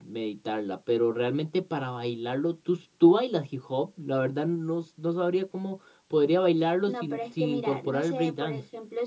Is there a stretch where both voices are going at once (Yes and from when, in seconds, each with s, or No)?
Yes, from 6.9 s